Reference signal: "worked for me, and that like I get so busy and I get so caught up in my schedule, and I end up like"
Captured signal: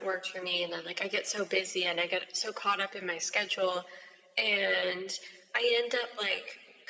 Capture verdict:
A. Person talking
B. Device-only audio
B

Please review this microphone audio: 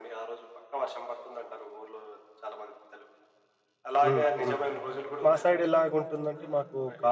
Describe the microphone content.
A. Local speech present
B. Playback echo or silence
A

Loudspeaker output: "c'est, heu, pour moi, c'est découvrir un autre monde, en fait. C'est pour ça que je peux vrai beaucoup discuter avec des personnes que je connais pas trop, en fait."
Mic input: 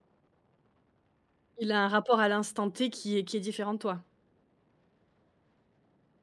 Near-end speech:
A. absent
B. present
B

